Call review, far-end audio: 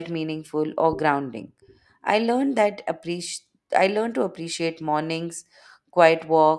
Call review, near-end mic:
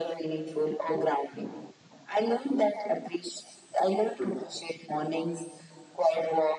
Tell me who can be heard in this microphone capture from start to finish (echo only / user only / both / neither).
echo only